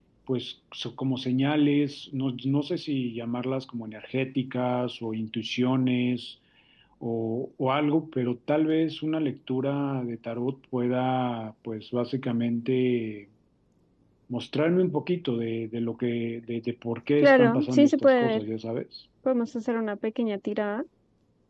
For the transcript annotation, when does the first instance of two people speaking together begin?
17.2 s

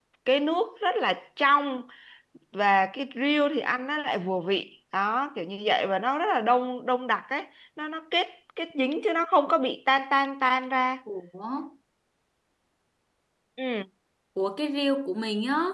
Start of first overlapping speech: none

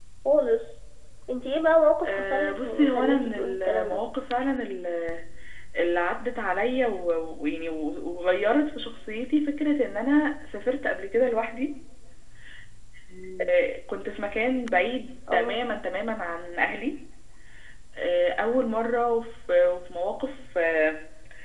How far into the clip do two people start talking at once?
2.0 s

